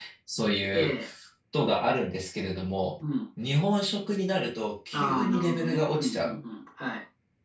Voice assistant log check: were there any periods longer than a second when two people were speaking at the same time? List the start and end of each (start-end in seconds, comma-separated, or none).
4.9-6.4